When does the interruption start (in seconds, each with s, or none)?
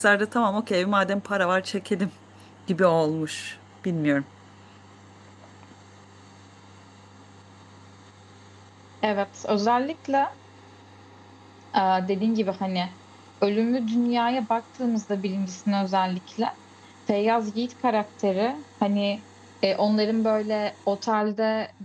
none